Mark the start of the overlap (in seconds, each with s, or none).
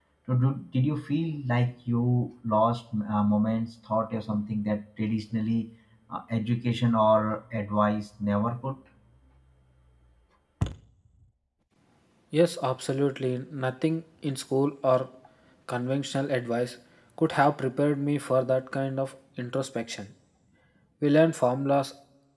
none